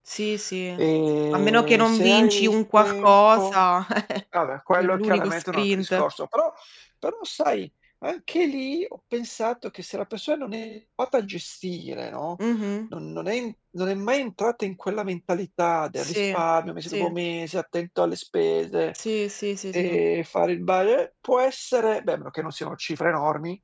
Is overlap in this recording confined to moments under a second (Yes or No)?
No